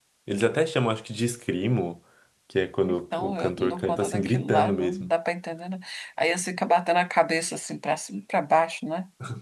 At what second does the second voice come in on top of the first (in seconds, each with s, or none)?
2.8 s